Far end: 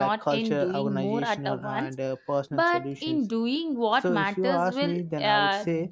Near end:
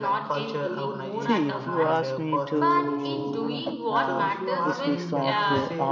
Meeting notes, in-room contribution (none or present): present